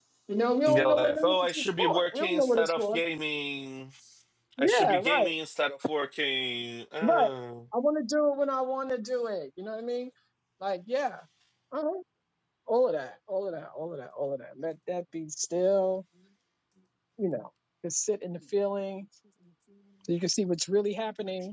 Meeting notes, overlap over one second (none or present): present